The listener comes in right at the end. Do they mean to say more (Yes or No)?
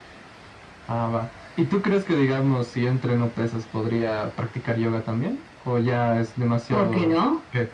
Yes